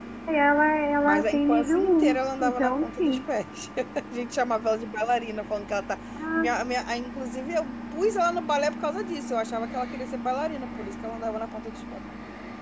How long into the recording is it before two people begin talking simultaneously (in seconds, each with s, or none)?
1.0 s